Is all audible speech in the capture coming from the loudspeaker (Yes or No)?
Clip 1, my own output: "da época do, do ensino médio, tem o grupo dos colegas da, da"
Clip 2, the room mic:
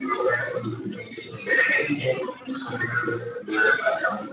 Yes